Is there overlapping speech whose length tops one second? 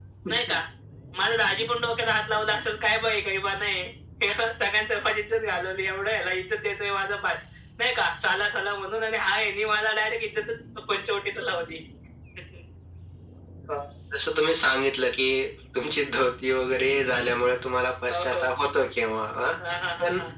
No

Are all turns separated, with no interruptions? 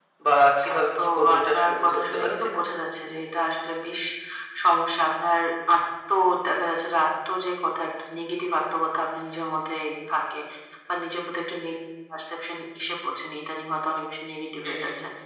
No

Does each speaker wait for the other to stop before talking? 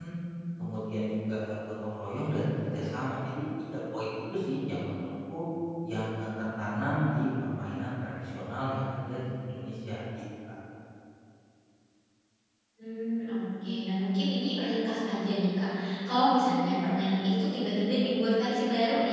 Yes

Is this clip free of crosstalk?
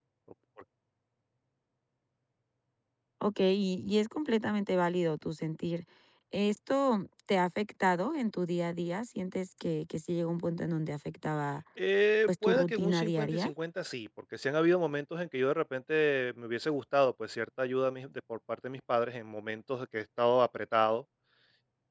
No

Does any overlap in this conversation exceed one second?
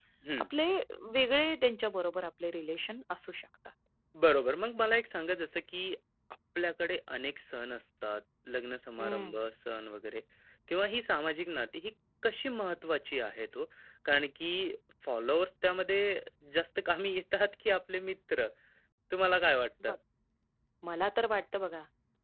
No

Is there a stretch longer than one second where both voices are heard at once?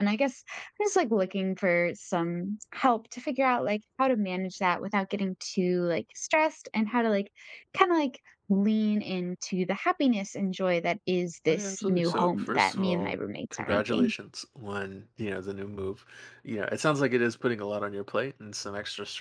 Yes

